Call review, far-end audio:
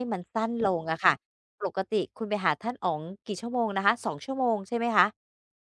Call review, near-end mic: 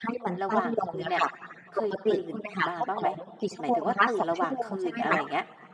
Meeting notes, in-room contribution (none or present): present